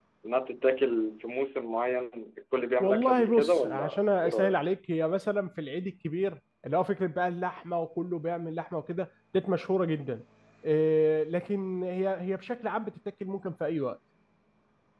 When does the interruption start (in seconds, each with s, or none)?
2.8 s